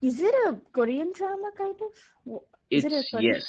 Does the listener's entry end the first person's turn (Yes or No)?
Yes